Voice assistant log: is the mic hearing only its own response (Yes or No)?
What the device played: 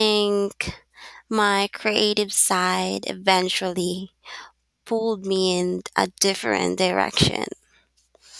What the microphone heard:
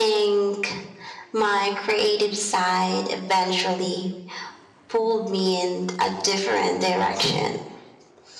Yes